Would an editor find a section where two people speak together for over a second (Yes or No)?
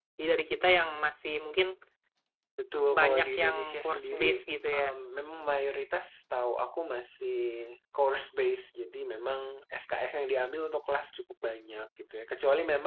Yes